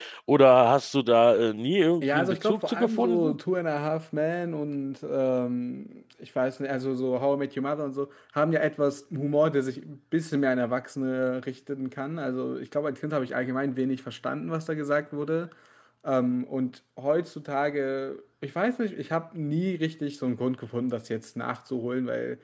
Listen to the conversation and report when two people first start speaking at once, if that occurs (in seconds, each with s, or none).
2.0 s